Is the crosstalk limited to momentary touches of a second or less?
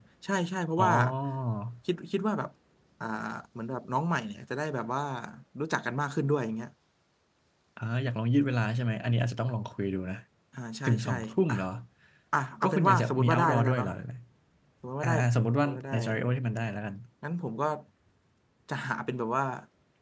No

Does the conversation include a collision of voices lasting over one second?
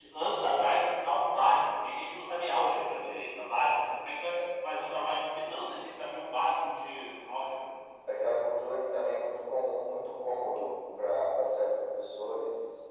No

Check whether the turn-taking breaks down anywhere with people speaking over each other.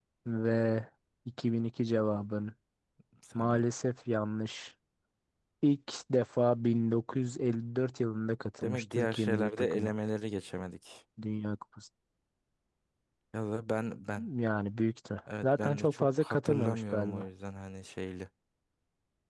Yes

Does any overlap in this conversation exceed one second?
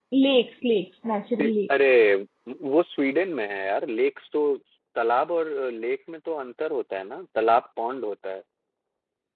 No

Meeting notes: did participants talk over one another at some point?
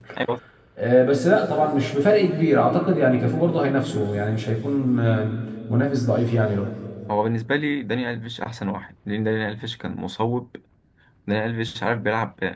No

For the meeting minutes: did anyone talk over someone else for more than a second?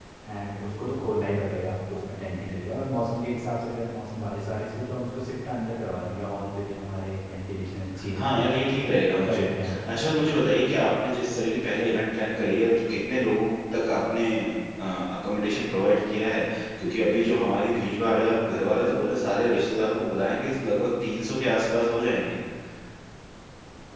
Yes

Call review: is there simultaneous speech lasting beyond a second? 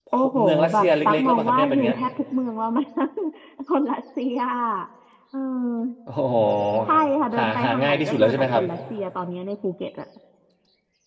Yes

